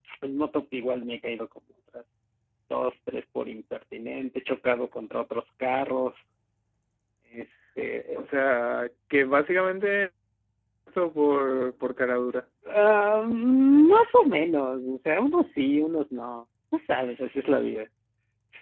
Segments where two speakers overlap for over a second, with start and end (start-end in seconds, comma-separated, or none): none